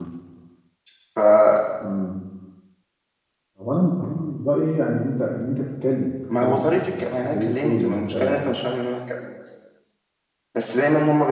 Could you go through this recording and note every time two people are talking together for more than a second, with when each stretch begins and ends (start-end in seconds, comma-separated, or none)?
6.4-8.5